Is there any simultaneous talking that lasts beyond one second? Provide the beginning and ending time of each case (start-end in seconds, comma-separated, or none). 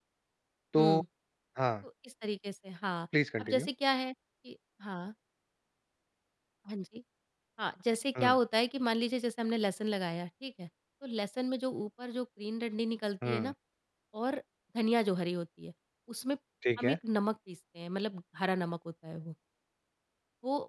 none